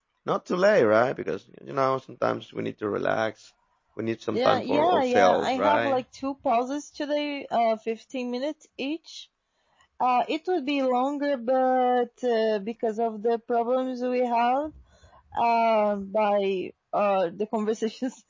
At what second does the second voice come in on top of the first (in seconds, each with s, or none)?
4.3 s